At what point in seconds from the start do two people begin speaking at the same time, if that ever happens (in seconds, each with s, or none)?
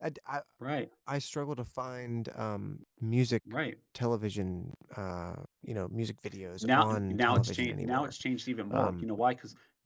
6.6 s